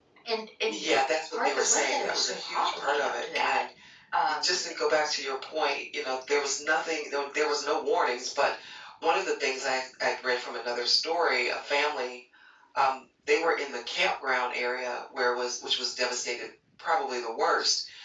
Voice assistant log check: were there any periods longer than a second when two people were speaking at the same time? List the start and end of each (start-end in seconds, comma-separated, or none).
0.7-3.6